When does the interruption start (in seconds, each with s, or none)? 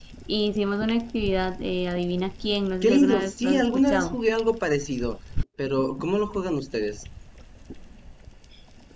2.8 s